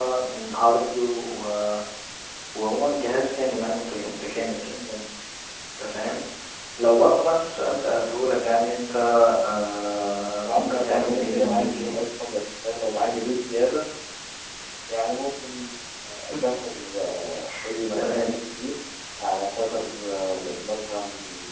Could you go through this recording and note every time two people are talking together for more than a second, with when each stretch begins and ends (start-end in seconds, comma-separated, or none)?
10.4-12.0